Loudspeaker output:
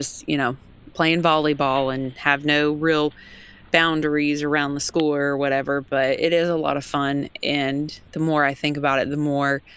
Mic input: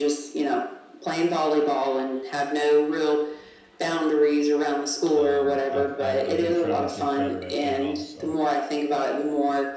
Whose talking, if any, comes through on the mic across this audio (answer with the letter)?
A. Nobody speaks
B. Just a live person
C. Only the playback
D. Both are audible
D